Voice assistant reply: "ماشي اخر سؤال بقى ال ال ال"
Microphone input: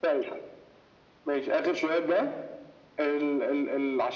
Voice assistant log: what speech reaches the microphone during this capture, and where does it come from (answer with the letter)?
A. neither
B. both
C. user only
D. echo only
D